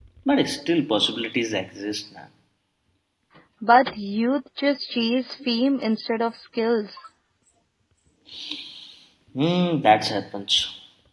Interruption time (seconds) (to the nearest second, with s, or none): none